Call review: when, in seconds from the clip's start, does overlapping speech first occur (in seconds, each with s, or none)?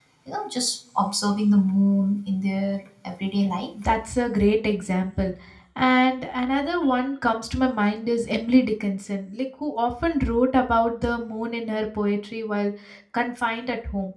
none